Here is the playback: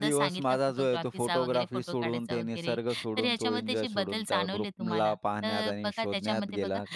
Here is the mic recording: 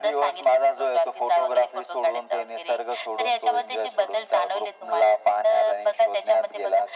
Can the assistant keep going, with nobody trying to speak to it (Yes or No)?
Yes